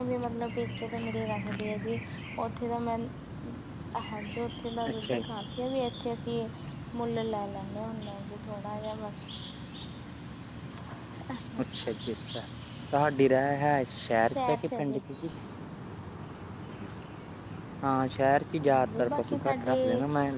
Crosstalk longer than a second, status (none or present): present